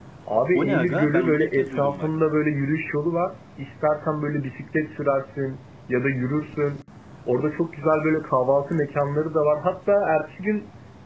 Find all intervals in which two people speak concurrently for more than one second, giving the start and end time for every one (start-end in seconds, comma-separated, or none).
0.5-2.1